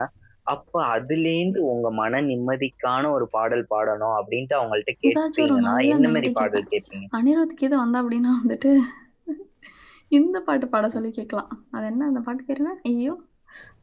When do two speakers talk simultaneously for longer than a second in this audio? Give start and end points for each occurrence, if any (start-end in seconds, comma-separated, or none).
5.1-6.7